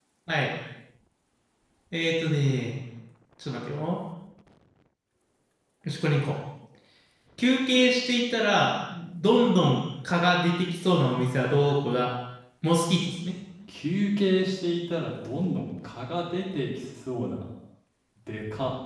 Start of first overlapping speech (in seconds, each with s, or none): none